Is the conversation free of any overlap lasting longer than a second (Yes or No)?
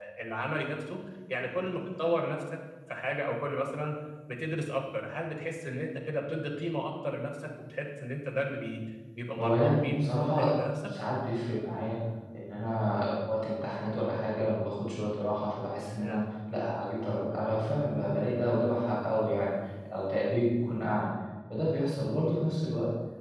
No